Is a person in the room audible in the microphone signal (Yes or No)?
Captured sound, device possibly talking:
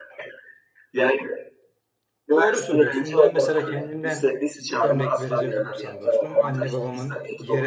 Yes